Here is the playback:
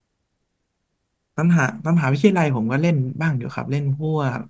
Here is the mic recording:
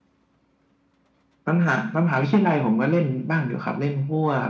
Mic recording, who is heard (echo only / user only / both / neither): echo only